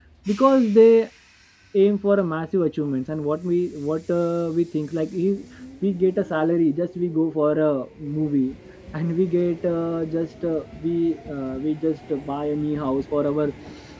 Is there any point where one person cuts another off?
No

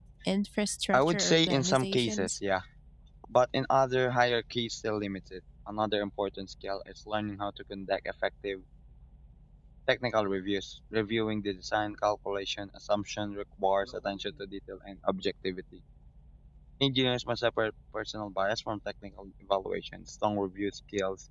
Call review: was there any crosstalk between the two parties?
Yes, from 0.9 s

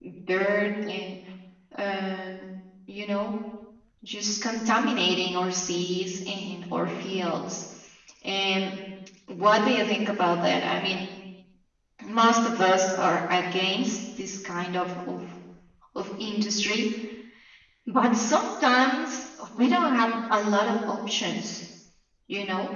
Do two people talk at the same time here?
No

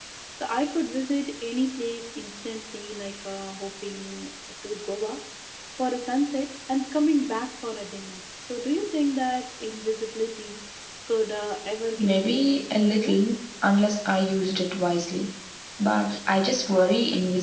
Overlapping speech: Yes, from 12.0 s

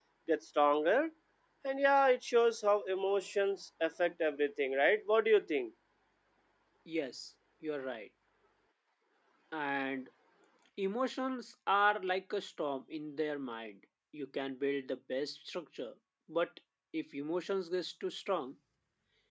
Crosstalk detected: No

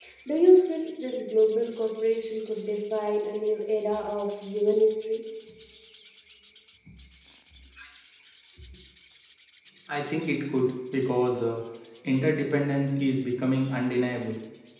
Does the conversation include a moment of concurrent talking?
No

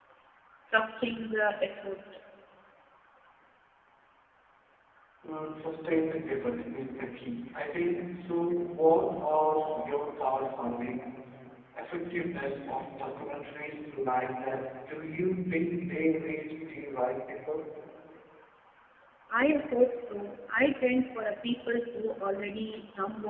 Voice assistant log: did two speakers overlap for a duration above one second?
No

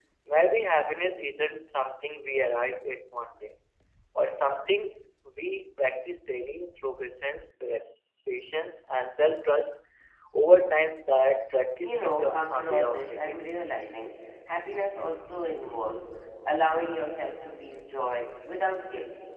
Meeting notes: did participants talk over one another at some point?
Yes, from 11.8 s

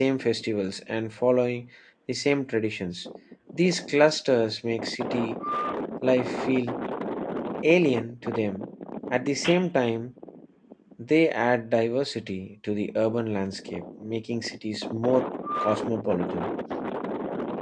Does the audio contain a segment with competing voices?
No

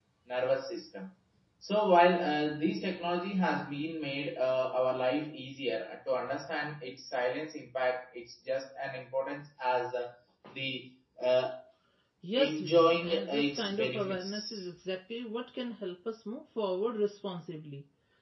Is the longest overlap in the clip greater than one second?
Yes, from 12.4 s

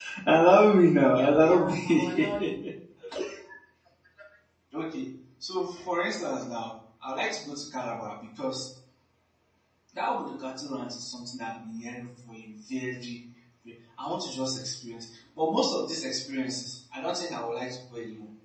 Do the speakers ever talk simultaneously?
Yes, from 1.1 s

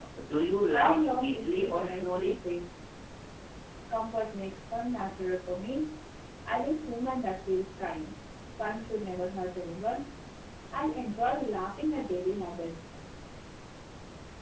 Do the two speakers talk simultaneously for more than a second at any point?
Yes, from 0.7 s

